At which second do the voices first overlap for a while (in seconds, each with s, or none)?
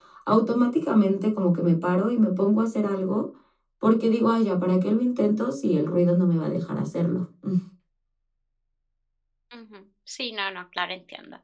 none